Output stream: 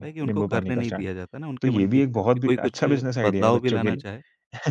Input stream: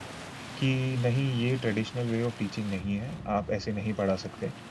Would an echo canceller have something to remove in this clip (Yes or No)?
No